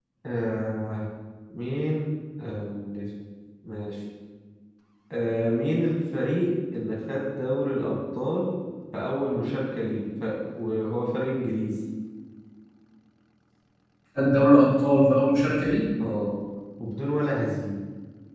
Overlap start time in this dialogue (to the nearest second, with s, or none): none